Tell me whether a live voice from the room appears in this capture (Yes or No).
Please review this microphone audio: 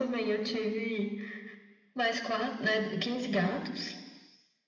No